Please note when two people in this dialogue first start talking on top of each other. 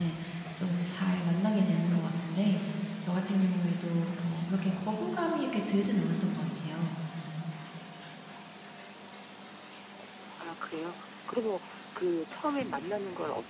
none

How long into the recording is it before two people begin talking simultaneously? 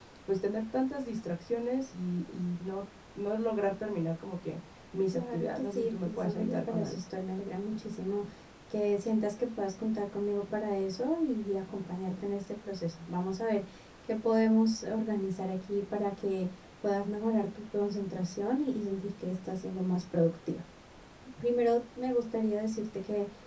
5.1 s

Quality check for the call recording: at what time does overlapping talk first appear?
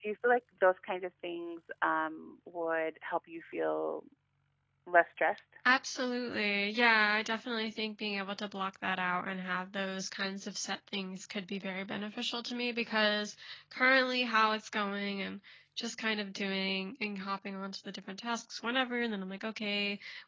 none

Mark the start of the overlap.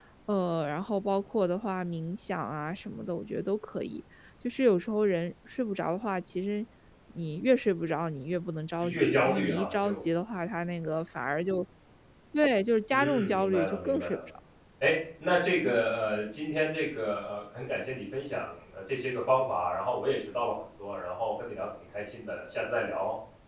8.8 s

